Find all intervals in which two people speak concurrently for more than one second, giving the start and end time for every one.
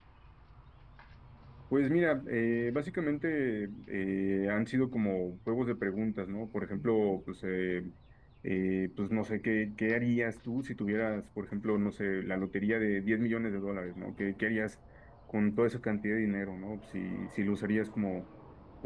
none

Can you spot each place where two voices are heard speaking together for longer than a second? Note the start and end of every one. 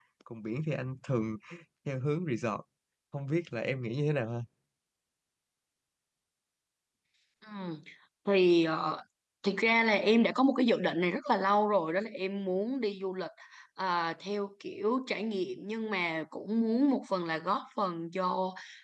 none

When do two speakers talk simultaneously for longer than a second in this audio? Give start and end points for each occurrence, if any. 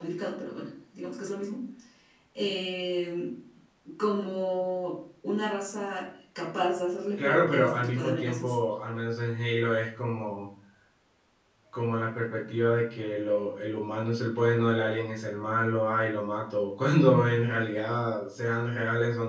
7.2-8.6

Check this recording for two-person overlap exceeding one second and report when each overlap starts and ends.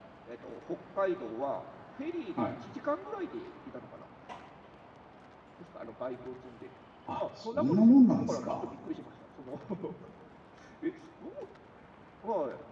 7.2-8.7

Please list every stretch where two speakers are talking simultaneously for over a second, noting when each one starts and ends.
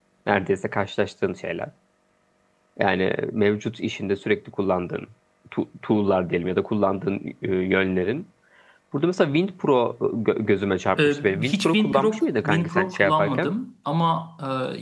11.0-13.5

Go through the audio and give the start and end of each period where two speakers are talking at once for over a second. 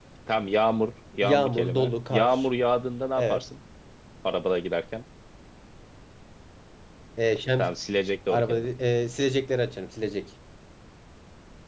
1.2-2.4

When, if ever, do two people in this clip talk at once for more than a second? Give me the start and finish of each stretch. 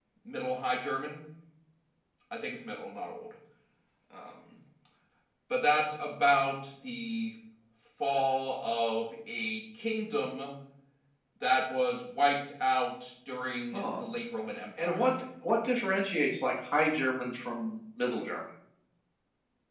none

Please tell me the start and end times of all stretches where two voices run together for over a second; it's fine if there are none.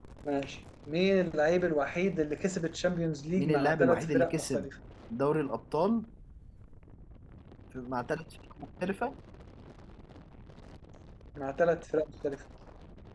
3.4-4.7

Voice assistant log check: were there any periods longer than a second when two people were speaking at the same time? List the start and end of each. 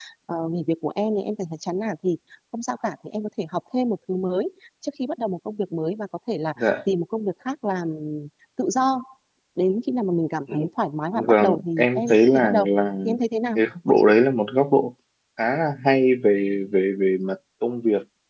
11.1-12.6

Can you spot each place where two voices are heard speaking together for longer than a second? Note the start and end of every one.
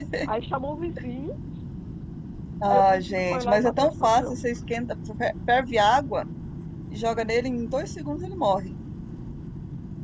2.7-4.4

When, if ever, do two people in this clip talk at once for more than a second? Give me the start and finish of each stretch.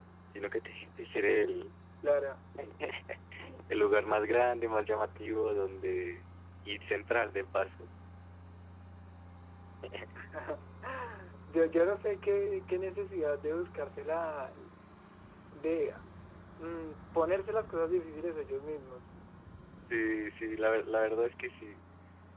none

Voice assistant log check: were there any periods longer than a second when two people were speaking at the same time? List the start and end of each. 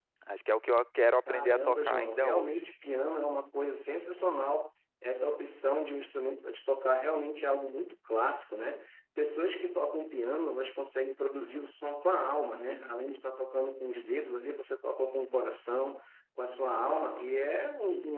1.3-2.7

